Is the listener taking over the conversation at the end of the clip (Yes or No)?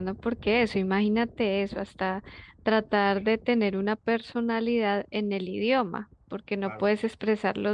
No